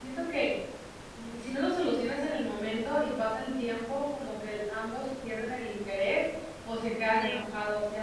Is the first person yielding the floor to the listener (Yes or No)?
No